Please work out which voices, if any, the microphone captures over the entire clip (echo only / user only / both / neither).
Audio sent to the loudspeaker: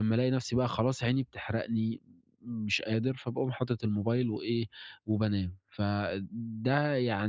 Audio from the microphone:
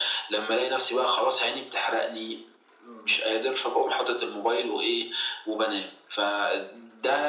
echo only